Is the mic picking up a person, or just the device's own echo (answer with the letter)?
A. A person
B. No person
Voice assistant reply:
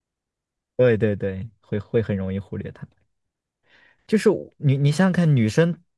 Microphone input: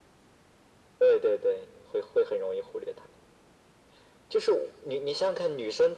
B